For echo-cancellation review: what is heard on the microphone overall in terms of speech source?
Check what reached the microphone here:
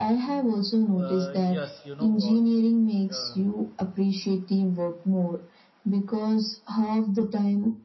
both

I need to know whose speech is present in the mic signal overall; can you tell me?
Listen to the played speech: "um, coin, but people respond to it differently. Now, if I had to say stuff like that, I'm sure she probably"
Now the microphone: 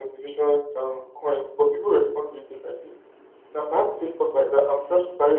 echo only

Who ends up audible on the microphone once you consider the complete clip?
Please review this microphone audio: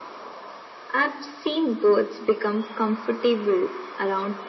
echo only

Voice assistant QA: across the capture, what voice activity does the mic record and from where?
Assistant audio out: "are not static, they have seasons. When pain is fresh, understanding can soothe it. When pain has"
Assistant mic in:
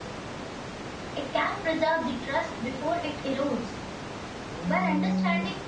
user only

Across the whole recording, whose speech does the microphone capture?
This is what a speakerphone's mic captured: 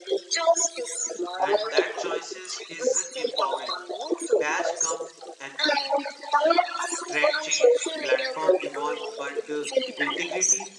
both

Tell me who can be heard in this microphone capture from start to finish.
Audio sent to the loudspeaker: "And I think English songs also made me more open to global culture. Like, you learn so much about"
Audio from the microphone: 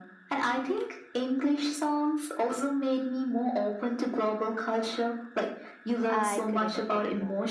both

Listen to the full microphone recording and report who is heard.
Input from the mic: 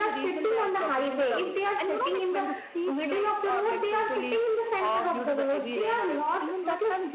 echo only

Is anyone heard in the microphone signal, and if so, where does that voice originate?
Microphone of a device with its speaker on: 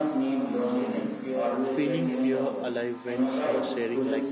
both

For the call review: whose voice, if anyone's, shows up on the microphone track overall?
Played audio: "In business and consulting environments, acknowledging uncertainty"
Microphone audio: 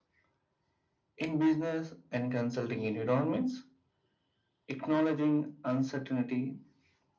echo only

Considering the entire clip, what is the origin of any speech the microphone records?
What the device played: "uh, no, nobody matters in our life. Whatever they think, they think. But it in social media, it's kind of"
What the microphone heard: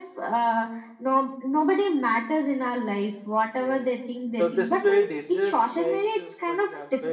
both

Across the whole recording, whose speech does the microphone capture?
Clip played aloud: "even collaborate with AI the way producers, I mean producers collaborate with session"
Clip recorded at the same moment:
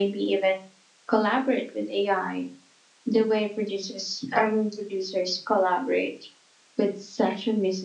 echo only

